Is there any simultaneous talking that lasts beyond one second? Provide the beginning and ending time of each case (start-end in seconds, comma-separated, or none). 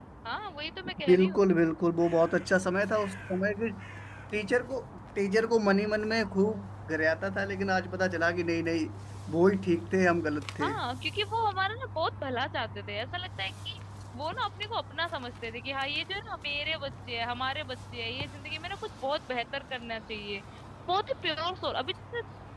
none